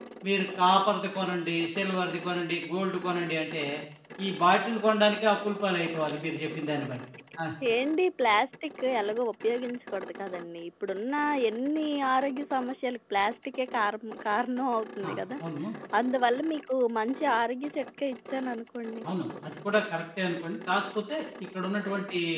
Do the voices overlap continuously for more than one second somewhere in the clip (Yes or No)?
No